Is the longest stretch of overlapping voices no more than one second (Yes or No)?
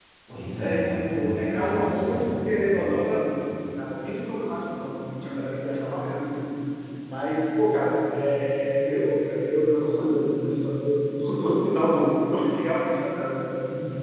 No